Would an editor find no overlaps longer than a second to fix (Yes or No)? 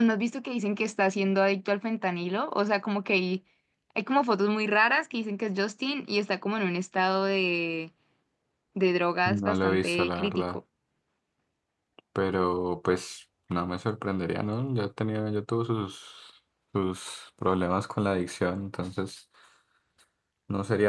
No